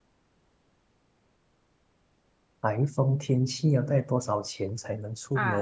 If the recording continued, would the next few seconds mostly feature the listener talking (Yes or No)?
Yes